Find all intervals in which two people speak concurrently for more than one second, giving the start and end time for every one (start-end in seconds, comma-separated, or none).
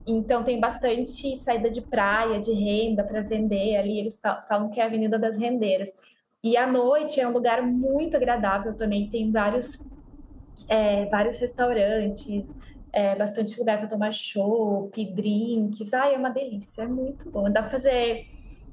none